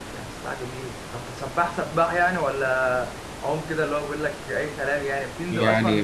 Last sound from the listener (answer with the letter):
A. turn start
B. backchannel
A